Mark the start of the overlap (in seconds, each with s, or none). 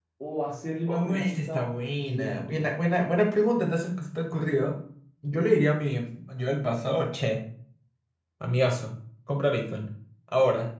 0.9 s